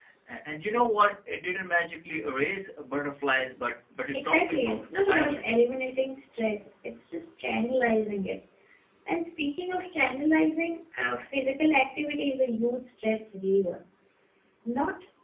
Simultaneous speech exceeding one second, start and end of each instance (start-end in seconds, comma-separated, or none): 4.1-5.5